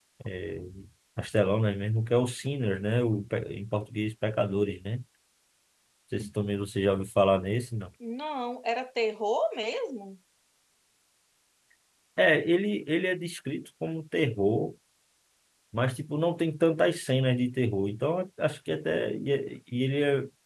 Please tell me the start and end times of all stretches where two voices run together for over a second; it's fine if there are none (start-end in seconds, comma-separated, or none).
none